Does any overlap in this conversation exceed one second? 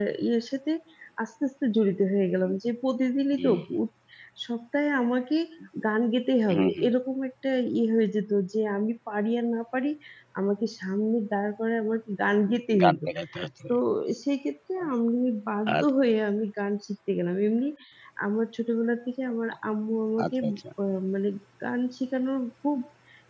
No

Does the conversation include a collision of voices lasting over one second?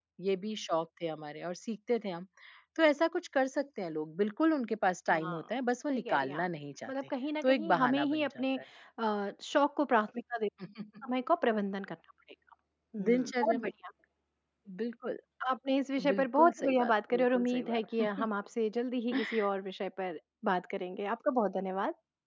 Yes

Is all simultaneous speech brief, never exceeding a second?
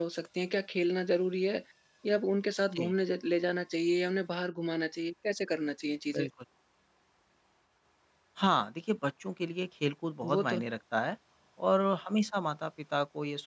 Yes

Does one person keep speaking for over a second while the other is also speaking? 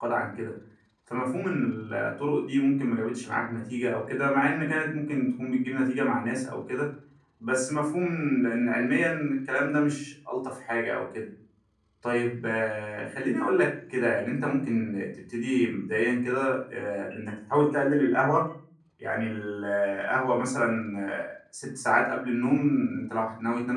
No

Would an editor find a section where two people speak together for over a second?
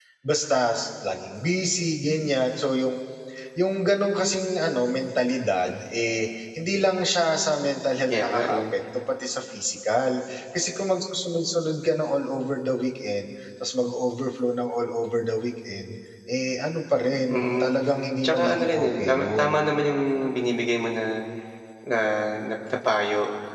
Yes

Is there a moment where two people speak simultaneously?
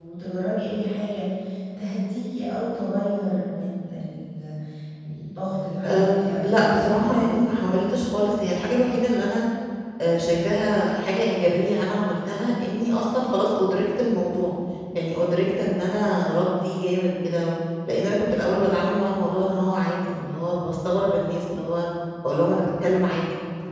Yes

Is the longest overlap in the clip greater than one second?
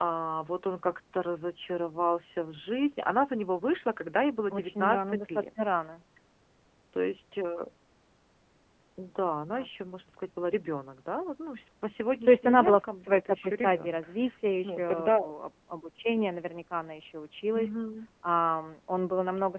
Yes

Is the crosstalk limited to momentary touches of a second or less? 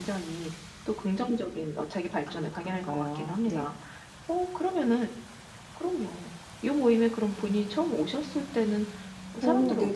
No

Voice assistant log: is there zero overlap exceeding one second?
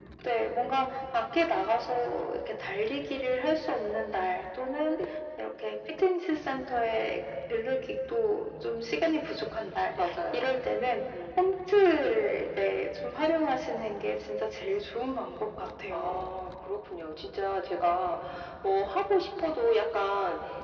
Yes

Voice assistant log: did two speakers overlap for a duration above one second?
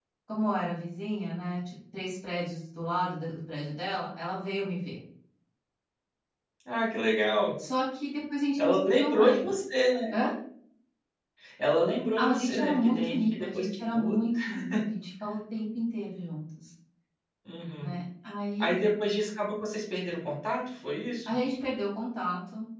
Yes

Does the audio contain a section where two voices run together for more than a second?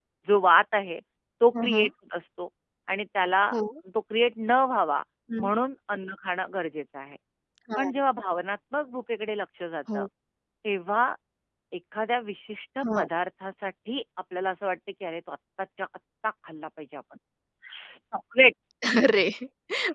No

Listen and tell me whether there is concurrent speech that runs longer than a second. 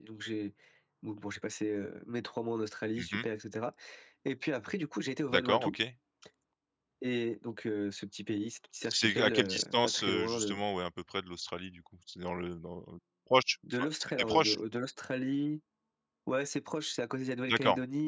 Yes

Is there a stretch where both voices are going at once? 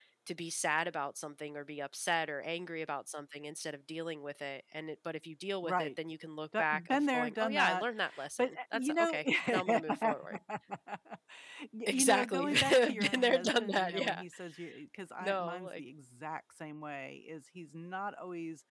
Yes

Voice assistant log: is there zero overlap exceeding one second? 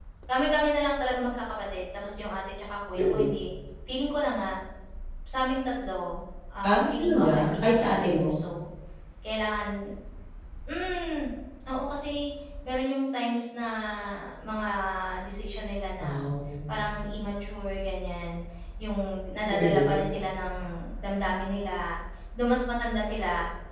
No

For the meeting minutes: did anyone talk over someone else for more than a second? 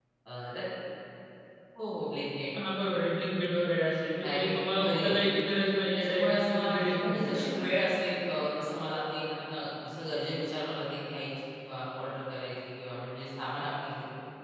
Yes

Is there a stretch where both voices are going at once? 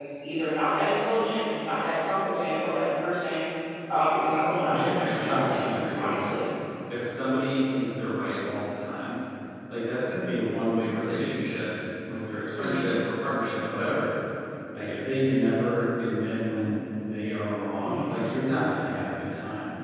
Yes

